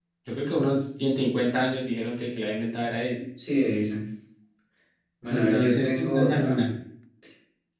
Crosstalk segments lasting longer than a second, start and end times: 5.3-6.6

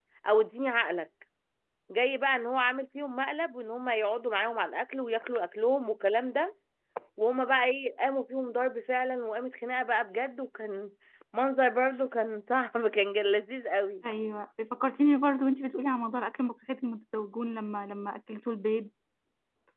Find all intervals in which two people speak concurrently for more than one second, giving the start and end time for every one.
none

